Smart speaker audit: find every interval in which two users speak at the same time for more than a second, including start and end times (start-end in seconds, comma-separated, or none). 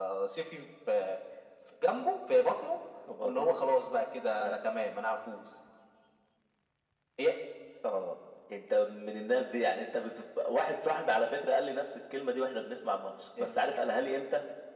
none